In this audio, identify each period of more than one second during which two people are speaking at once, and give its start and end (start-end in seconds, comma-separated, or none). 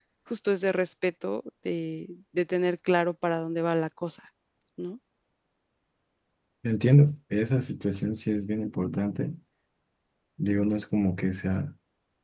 none